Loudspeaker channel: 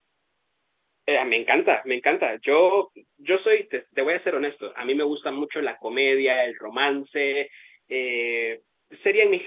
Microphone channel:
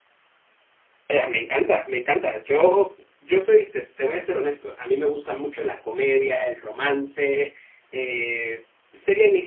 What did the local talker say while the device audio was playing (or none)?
none